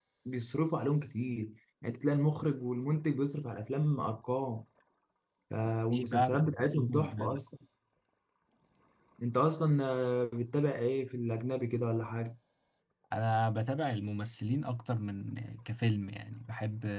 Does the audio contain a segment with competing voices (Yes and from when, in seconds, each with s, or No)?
Yes, from 6.1 s